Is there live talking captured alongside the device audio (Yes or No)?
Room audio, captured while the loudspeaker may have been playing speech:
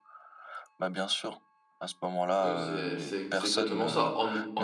Yes